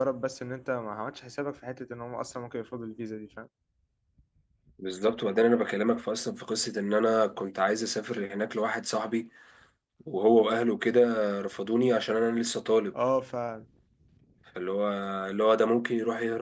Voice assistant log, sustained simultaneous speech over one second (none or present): none